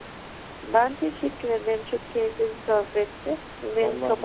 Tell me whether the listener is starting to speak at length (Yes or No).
Yes